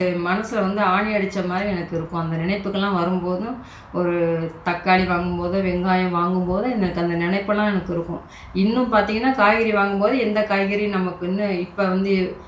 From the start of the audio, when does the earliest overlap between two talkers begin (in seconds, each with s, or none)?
none